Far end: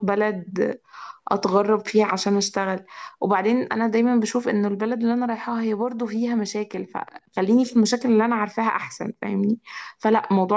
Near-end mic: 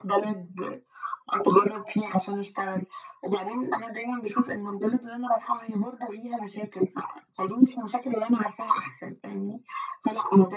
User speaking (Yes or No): No